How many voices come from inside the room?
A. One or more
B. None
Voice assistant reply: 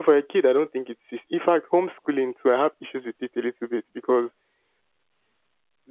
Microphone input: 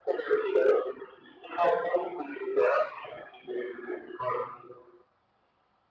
B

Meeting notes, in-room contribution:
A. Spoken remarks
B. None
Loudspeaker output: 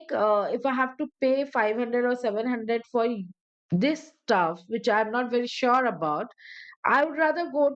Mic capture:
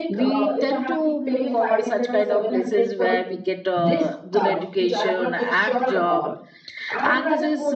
A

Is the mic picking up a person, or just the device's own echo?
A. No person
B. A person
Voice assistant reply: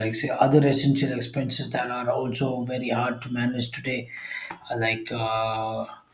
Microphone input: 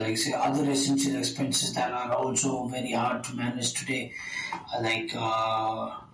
A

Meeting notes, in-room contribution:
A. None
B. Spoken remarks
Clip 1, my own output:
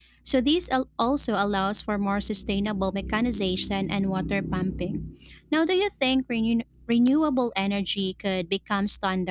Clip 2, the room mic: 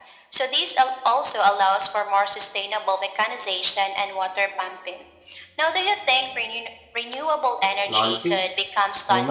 B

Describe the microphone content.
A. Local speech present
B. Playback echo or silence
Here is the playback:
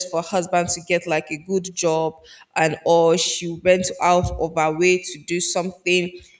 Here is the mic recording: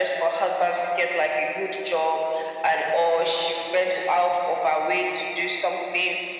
B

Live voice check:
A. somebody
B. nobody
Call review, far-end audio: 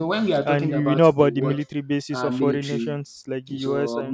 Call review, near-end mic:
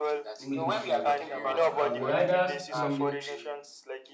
A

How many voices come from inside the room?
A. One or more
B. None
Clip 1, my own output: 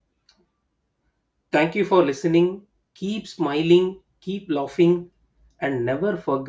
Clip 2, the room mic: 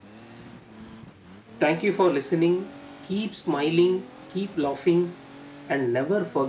B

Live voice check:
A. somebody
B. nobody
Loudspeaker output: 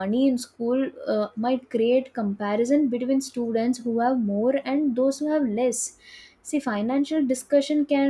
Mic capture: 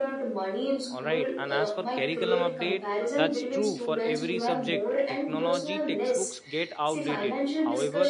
A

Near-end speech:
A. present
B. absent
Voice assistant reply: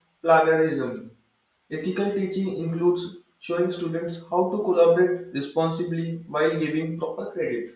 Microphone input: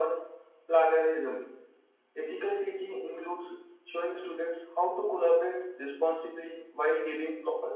B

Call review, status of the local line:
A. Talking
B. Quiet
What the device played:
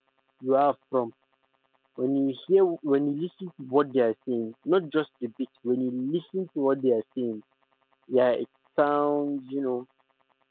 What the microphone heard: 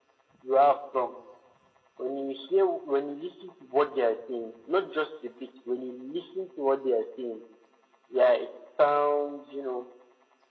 B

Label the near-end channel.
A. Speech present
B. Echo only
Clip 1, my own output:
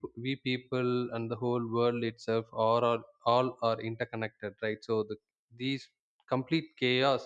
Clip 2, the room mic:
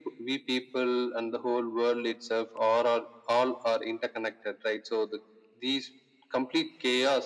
B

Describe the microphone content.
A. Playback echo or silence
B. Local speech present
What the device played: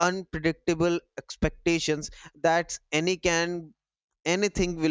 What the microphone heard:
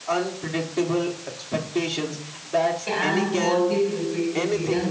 B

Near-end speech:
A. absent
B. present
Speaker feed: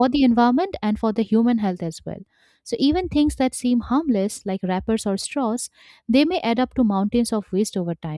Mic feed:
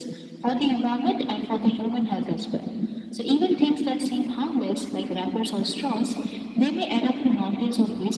A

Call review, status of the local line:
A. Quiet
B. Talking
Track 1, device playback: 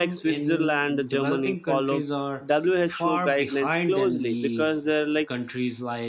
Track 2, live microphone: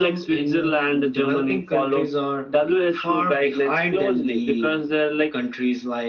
A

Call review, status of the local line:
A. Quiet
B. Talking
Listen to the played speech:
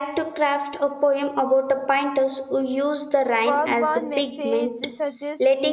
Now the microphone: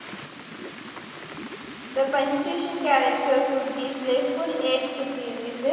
B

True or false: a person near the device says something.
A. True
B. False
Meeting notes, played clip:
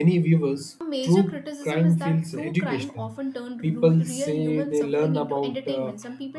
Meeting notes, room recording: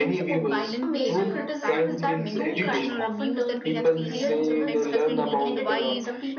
A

